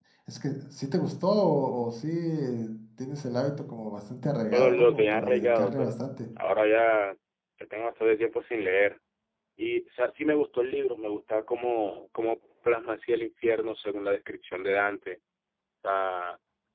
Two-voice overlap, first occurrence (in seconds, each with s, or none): 4.5 s